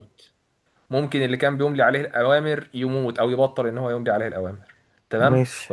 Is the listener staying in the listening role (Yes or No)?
Yes